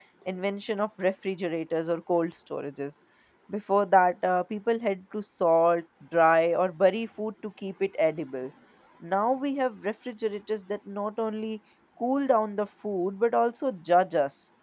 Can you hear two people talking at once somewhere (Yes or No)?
No